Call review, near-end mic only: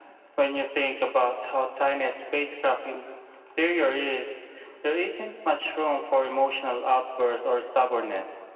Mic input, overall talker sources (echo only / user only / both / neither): echo only